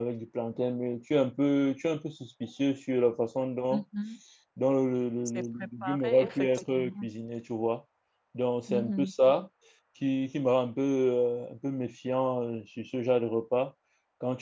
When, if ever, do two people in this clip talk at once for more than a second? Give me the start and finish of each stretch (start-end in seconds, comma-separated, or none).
5.3-7.1